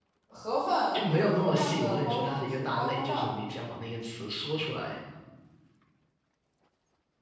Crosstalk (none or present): present